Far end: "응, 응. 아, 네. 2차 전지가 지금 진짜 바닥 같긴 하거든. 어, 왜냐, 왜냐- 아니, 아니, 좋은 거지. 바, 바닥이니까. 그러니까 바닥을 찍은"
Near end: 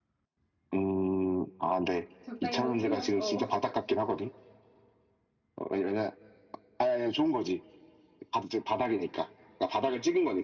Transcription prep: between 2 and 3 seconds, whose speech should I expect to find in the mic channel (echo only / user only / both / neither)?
both